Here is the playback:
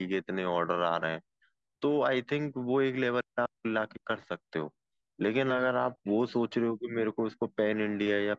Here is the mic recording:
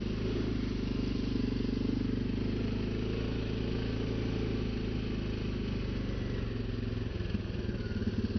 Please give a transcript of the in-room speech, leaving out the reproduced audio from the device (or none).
none